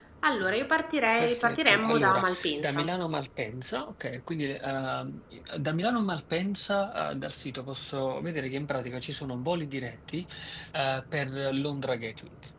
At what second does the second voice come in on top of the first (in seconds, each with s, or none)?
1.2 s